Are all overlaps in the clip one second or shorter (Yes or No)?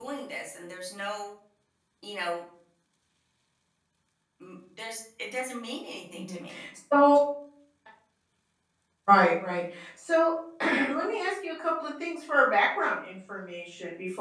Yes